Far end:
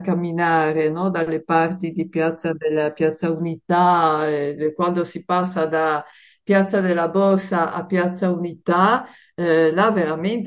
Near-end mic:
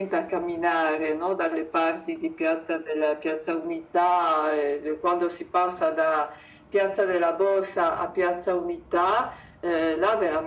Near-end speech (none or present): none